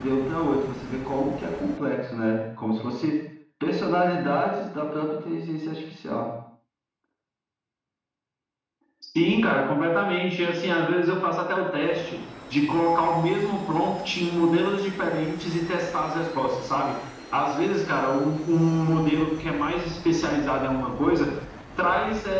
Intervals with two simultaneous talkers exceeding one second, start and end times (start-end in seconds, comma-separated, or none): none